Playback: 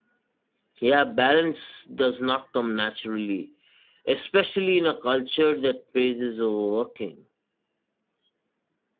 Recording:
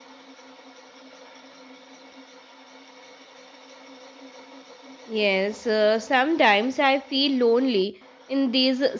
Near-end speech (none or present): present